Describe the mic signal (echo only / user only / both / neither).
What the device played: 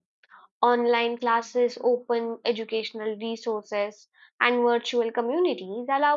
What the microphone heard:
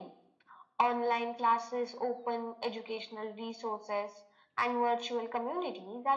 echo only